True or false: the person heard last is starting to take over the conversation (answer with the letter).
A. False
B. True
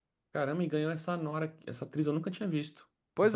B